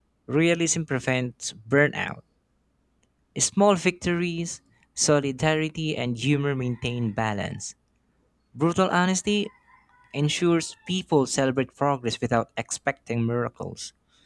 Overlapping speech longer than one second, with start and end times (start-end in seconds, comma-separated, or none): none